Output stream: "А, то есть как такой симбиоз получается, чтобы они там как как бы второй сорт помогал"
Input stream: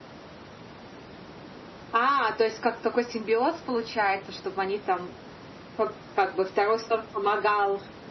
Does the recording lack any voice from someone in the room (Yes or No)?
Yes